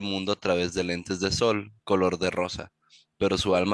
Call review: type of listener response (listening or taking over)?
listening